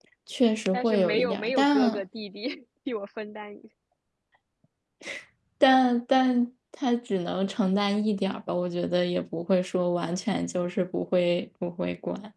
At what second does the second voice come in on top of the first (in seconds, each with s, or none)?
0.7 s